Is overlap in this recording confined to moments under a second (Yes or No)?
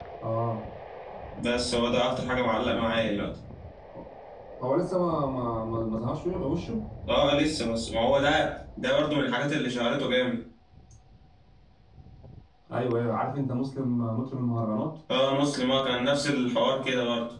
Yes